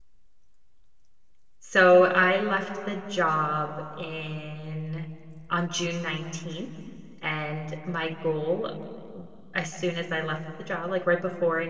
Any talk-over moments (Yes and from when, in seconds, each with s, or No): No